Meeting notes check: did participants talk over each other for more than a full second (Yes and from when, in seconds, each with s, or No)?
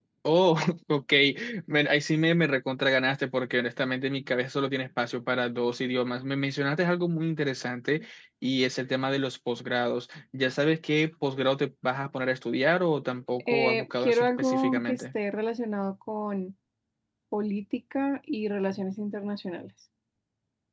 Yes, from 13.5 s